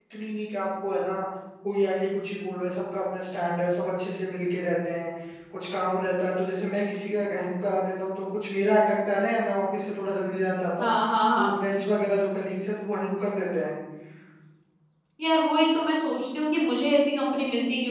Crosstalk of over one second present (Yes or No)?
No